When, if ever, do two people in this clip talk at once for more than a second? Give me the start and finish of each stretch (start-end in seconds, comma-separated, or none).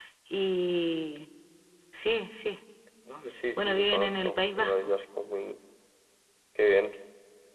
3.6-4.9